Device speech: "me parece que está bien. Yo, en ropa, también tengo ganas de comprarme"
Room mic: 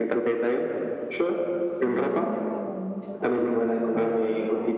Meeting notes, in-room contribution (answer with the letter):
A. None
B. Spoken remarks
B